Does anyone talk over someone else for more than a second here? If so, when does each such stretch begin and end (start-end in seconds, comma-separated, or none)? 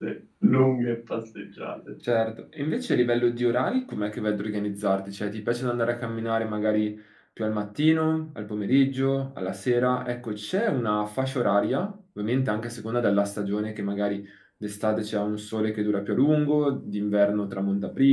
none